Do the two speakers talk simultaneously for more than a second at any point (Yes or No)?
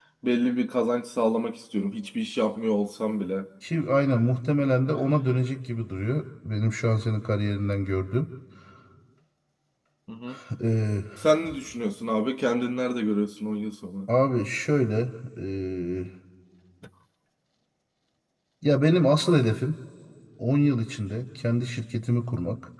No